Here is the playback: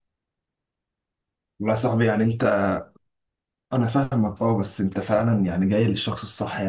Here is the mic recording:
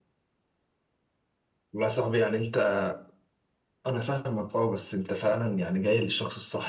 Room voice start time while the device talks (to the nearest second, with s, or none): none